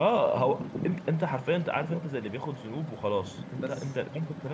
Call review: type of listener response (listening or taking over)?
listening